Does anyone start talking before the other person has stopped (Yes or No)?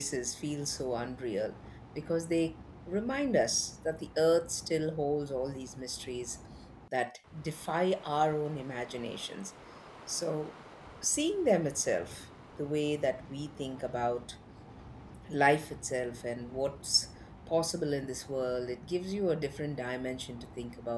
No